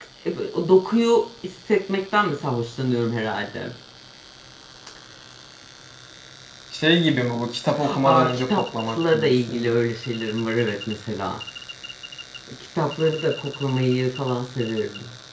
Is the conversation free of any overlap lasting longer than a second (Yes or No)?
No